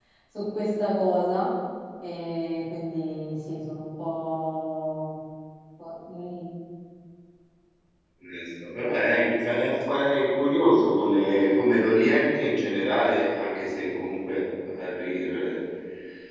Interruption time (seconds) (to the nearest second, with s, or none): none